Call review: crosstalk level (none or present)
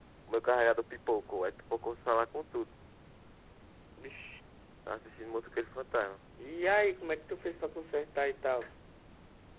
none